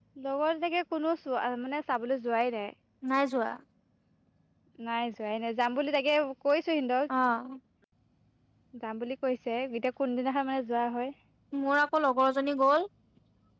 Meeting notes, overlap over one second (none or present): none